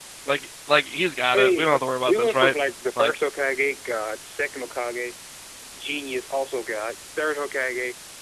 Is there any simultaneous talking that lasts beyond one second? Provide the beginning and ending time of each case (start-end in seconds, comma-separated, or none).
1.3-2.5